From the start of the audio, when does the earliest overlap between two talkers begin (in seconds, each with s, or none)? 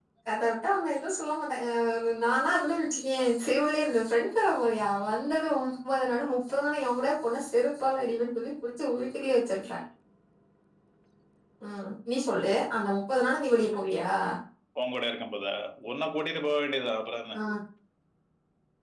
none